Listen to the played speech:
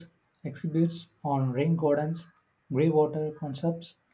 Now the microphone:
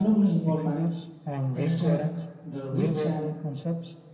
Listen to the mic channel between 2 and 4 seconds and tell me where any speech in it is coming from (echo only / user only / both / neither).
both